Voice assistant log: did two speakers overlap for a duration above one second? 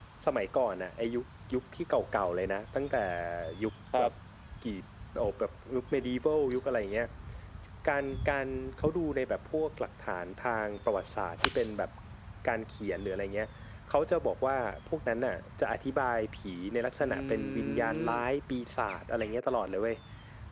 Yes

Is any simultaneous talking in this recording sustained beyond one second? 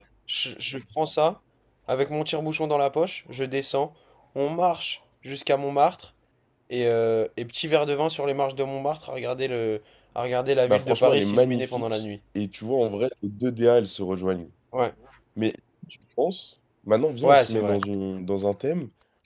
Yes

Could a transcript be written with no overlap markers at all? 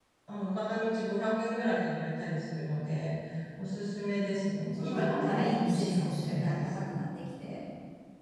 No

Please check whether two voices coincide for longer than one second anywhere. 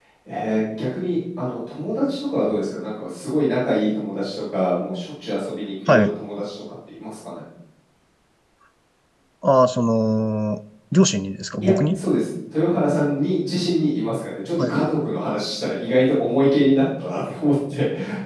No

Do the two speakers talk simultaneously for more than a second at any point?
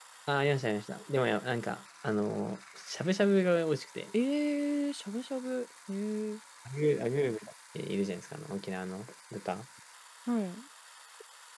No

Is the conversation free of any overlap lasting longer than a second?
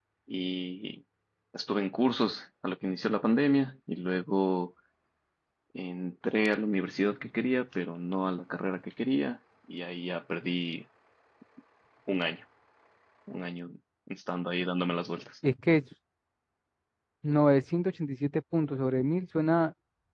Yes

